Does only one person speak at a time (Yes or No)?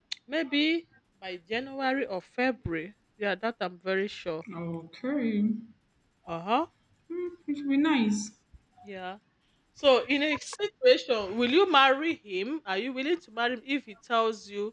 Yes